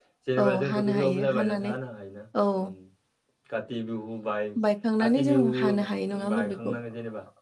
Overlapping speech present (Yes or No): Yes